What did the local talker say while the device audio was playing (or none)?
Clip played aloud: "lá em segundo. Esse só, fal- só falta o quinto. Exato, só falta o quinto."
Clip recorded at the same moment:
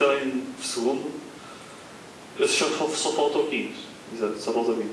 none